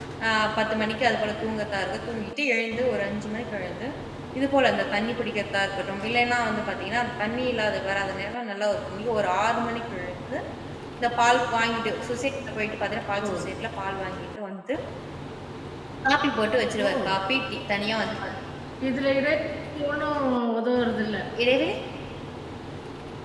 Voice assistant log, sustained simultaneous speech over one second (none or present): none